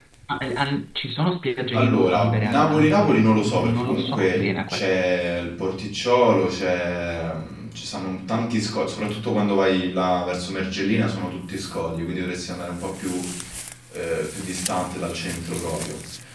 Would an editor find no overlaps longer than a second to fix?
No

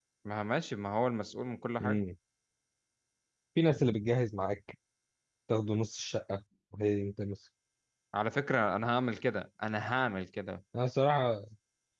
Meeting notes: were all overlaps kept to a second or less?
Yes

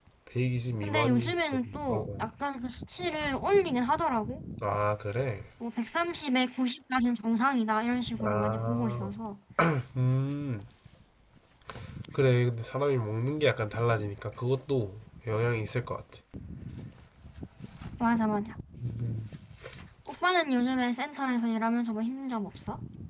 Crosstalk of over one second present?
Yes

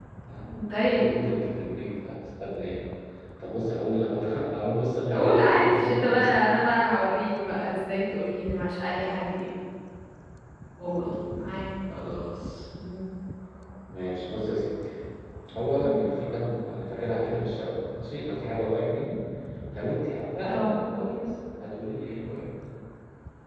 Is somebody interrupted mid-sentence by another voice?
Yes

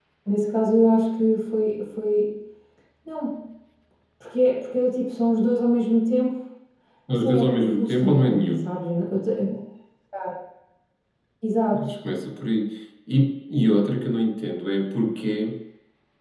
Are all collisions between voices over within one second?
No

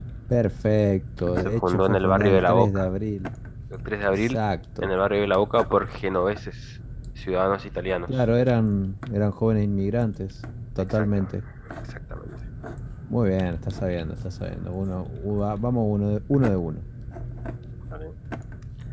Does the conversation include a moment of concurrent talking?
Yes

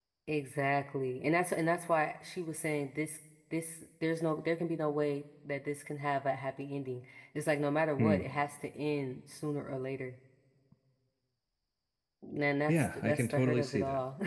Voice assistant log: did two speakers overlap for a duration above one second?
Yes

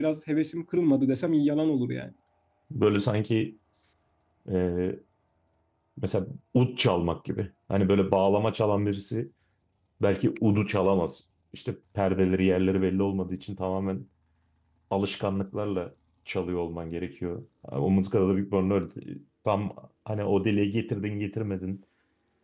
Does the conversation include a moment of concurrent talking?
No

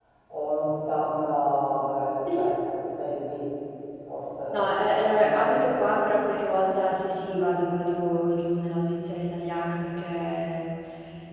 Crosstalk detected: Yes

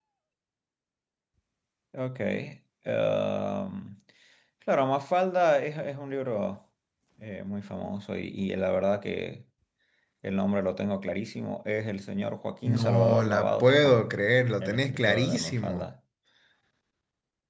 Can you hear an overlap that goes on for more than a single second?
Yes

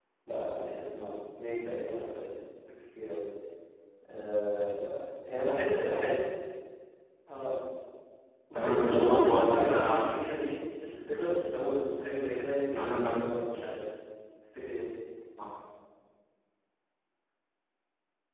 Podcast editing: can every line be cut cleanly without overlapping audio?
No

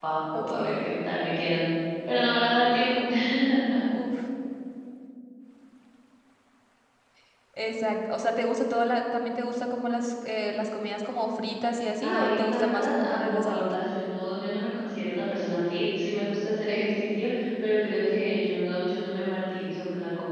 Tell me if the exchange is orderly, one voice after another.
No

